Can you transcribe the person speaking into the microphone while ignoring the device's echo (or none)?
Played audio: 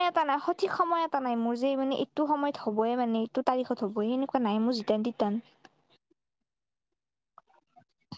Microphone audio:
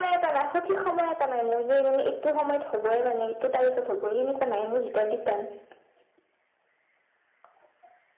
none